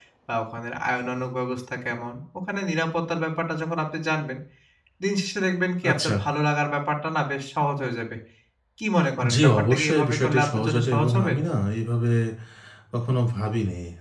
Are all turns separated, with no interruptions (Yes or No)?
No